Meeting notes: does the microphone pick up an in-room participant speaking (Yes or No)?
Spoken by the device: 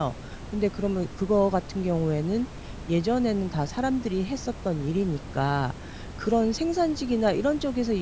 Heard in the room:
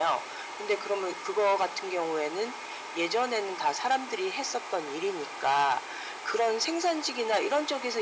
No